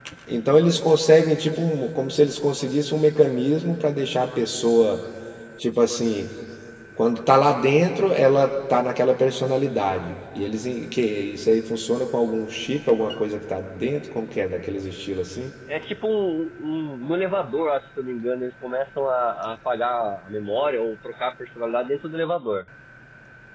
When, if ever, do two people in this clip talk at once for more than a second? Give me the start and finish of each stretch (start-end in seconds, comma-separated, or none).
none